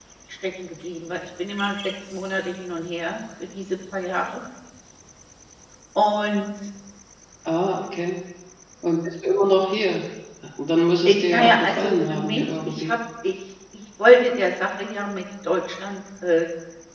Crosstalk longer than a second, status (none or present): present